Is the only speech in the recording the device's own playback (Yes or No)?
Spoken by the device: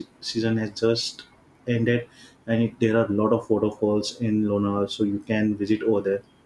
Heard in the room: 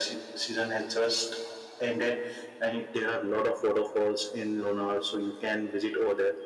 Yes